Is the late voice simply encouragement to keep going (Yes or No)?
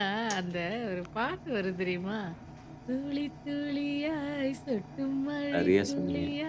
Yes